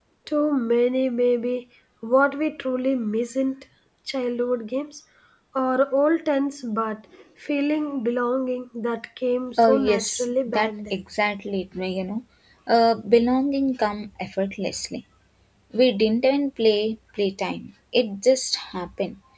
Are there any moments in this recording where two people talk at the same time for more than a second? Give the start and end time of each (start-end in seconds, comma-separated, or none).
9.6-10.9